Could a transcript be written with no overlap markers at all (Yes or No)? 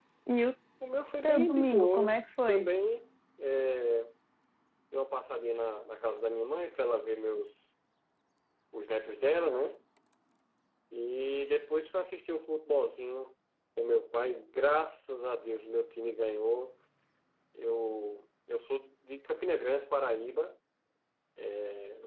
No